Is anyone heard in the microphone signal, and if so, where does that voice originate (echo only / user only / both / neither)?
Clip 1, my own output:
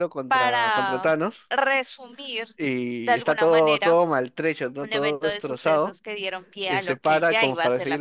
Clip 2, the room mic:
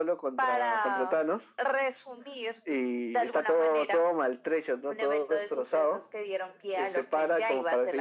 echo only